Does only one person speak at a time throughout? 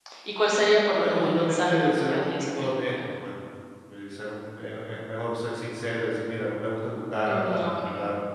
No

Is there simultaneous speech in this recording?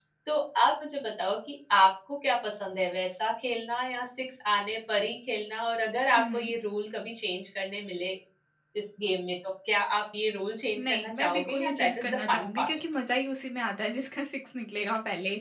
Yes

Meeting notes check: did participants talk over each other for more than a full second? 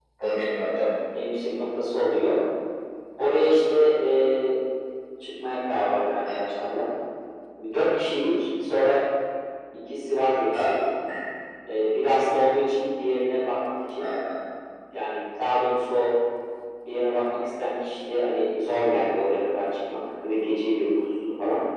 No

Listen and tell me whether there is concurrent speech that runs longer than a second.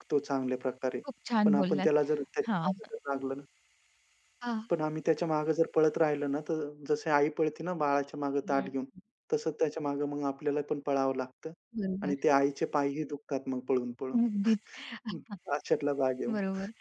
No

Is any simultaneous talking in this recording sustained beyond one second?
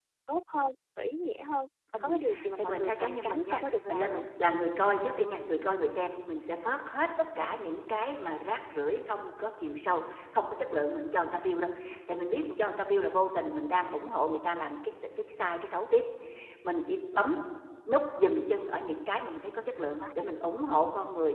Yes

